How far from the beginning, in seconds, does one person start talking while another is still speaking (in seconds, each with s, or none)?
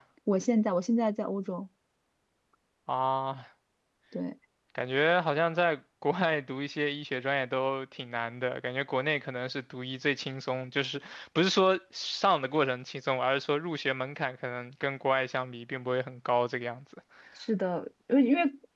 none